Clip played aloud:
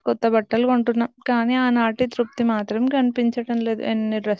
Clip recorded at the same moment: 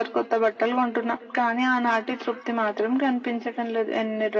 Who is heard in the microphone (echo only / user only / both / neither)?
echo only